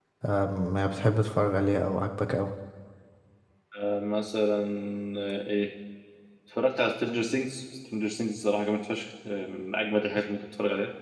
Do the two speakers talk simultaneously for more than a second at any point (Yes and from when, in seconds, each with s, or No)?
No